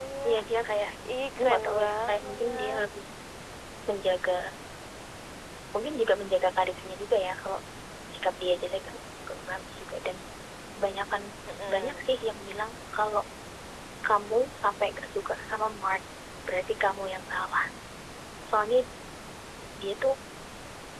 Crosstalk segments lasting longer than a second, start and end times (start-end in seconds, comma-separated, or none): 1.4-2.8